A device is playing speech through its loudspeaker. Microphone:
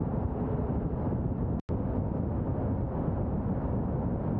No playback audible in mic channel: Yes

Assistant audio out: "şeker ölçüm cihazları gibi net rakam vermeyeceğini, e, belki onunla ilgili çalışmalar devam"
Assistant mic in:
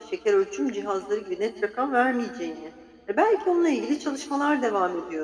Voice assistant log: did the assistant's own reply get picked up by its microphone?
Yes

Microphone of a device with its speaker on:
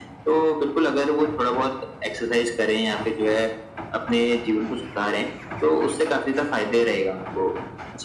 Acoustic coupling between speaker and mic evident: Yes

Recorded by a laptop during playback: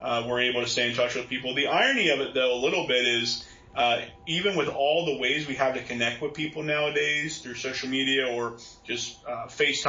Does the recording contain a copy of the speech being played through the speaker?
No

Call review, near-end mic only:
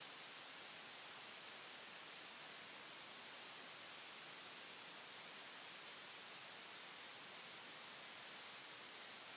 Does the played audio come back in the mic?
No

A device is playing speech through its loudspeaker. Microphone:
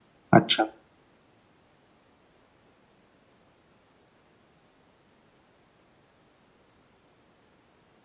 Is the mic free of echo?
Yes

